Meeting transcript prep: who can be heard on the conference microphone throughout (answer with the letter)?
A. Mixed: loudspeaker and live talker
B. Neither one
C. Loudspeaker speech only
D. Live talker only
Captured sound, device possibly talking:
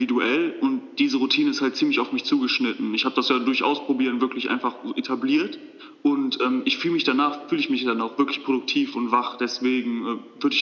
C